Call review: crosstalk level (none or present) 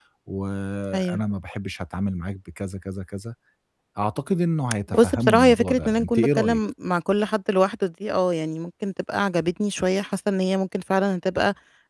present